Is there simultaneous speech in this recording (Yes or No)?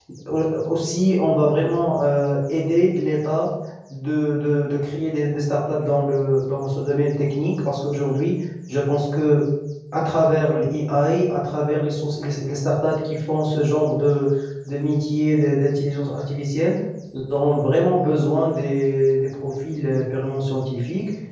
No